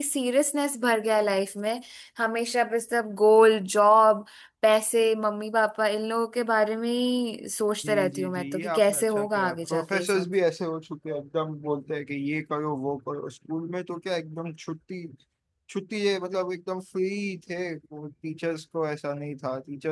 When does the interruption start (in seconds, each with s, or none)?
7.8 s